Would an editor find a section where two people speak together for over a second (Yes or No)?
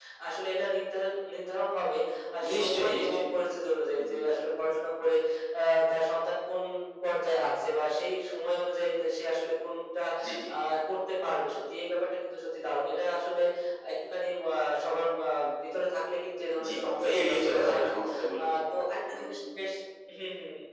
Yes